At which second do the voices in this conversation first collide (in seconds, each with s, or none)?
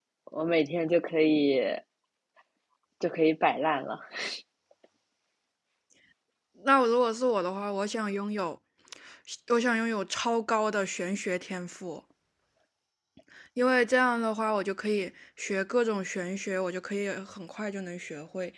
none